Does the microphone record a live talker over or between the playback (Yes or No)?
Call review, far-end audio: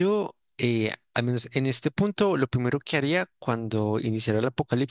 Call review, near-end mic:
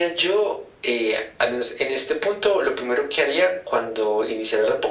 No